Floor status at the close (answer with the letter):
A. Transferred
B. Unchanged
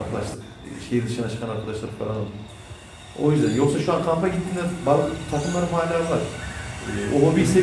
B